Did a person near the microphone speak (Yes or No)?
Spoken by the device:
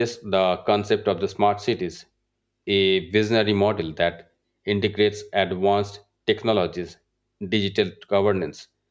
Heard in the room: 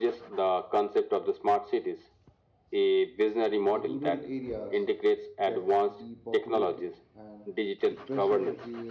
Yes